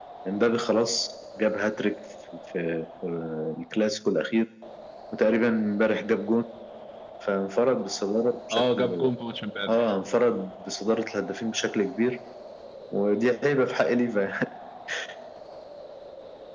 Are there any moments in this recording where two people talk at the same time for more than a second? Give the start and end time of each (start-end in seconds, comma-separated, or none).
none